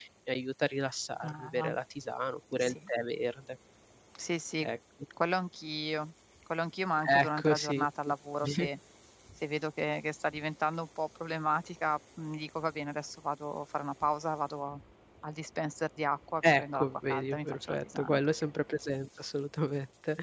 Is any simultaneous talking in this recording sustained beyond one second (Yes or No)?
Yes